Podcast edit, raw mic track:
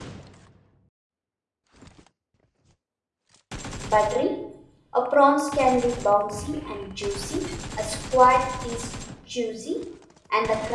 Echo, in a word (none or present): none